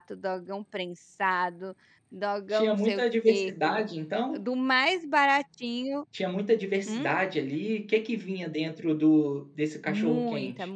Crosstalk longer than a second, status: present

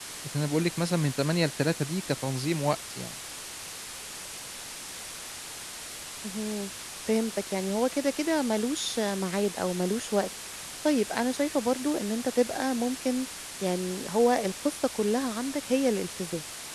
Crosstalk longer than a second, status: none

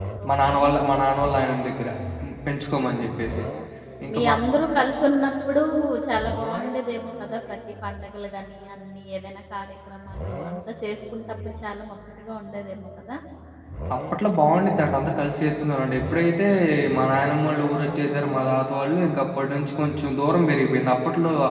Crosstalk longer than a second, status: none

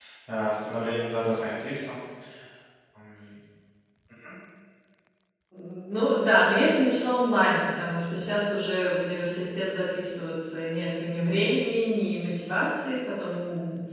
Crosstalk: none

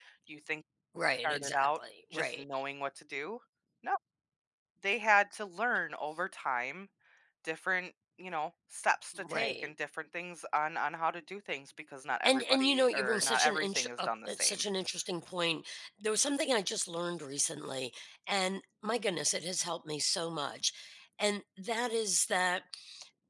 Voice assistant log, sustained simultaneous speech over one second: present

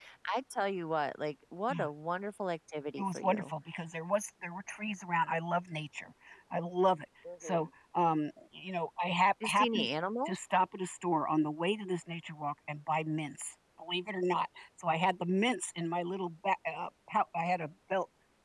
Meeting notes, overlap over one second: none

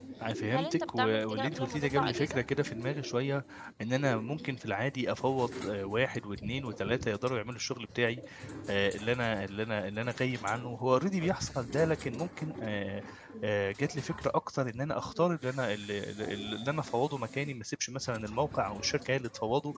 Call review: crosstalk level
present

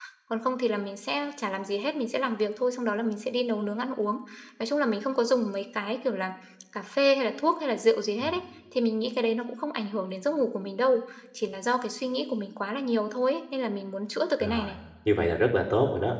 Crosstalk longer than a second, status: none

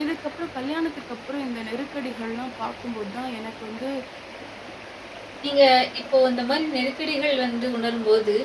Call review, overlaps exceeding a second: none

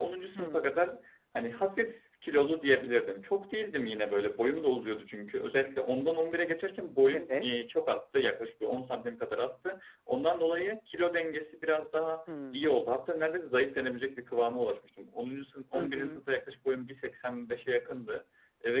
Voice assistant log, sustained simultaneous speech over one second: none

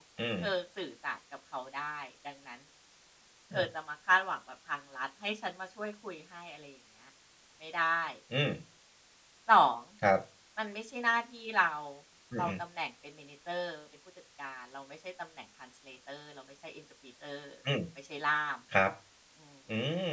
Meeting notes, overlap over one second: none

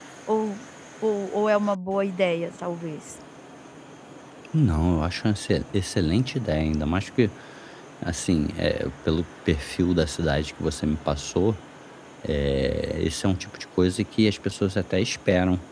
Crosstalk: none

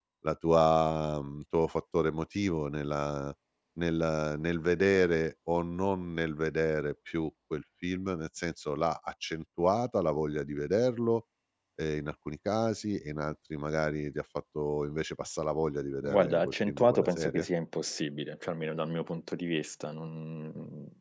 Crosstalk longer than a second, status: present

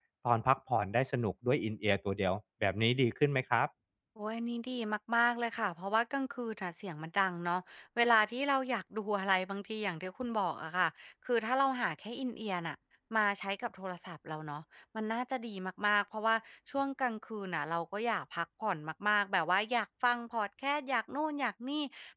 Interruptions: none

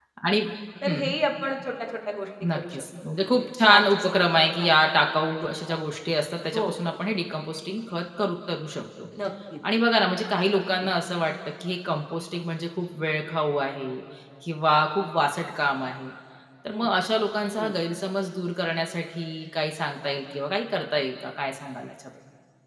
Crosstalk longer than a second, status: present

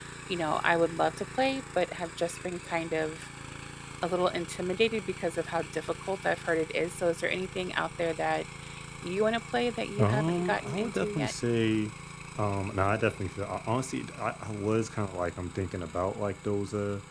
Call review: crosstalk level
present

